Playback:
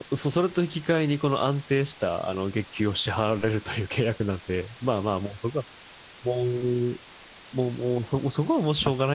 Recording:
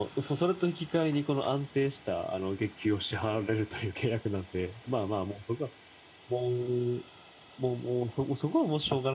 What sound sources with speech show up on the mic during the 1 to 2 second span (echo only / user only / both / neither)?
echo only